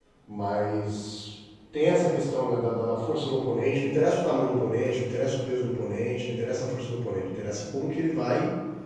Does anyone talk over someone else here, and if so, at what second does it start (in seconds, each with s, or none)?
none